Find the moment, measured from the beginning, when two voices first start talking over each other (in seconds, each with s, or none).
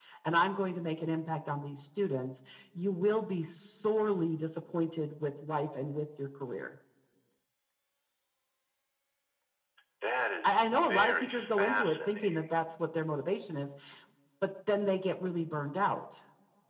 10.4 s